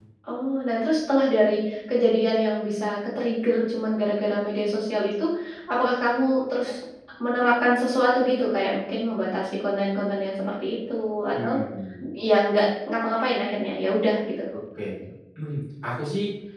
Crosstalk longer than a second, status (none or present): none